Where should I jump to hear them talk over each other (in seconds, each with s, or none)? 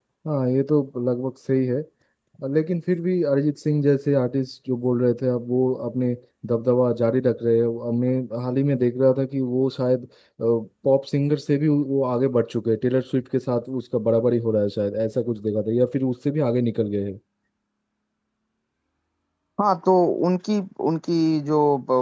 none